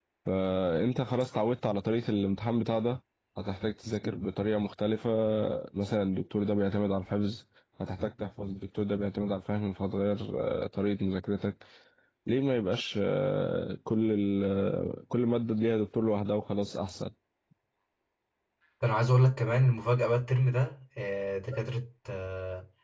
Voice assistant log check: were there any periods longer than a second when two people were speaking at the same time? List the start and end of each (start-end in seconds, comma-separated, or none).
none